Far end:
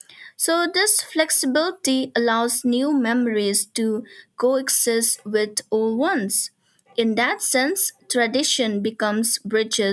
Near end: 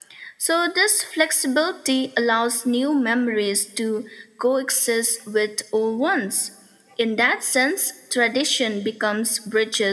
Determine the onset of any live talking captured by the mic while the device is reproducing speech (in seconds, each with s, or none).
none